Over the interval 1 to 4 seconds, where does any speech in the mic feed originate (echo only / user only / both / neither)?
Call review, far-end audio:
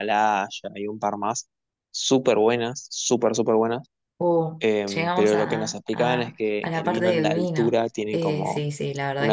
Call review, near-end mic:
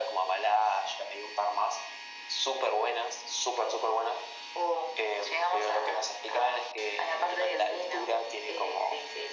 echo only